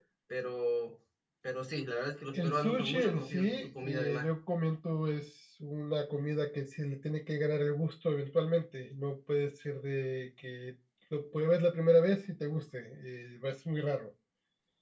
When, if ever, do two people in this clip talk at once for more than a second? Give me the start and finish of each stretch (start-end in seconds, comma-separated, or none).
2.3-4.2